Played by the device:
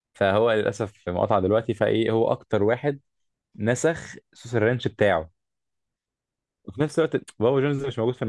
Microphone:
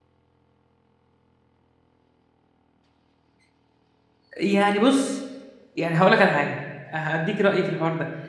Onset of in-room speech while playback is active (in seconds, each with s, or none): 4.4 s